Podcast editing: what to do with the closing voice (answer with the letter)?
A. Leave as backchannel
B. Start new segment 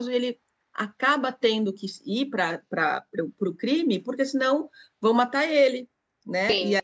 B